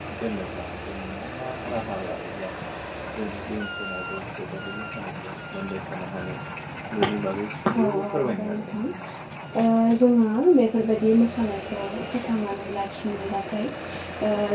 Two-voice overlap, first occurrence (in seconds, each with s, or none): 7.8 s